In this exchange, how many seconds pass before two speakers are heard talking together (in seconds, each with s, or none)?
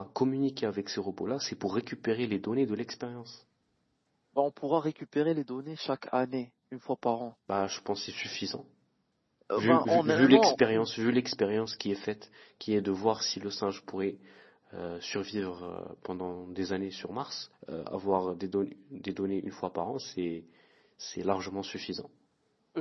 9.6 s